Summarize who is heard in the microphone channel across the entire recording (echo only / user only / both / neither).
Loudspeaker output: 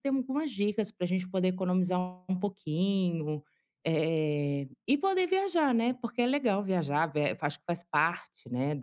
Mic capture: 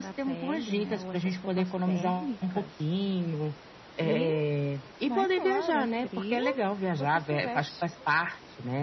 both